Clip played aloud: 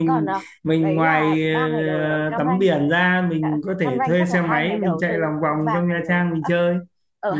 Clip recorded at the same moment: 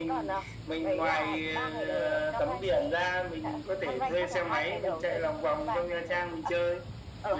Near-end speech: none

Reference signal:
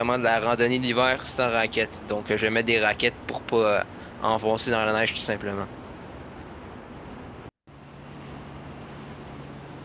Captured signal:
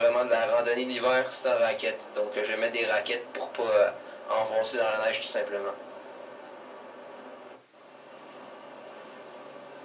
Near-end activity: none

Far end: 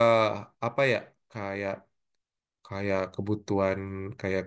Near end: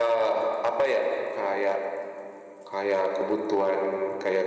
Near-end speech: none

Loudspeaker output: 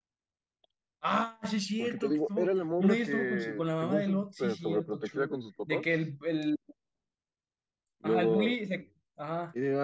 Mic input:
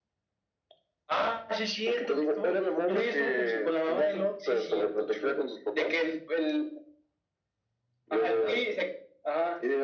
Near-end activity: none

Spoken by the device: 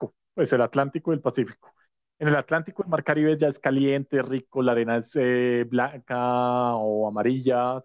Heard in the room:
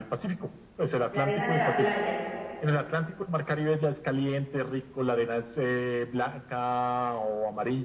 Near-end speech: present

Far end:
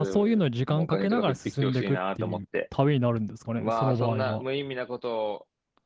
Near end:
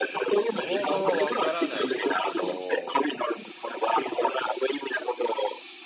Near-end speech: present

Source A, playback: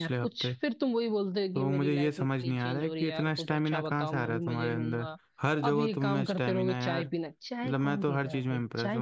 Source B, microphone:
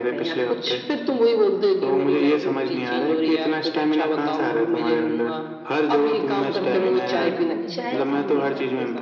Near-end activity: present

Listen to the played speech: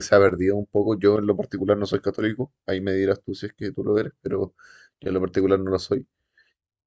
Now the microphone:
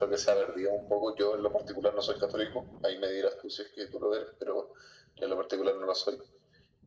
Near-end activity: none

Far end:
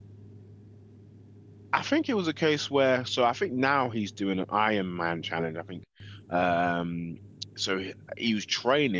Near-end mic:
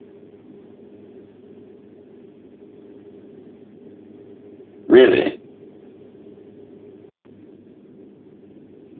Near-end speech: present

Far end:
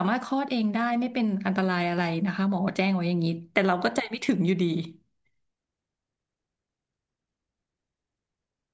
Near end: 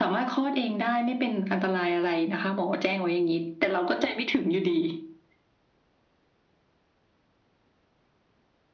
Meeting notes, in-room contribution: none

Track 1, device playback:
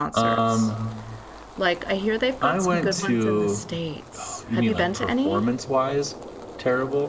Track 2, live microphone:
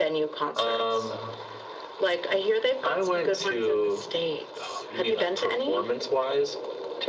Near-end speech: none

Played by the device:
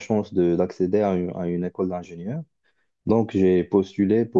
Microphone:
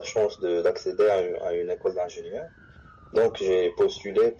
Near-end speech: none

